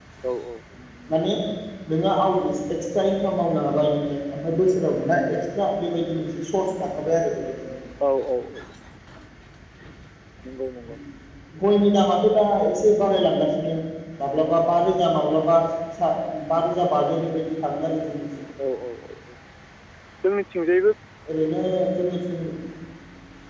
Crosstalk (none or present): none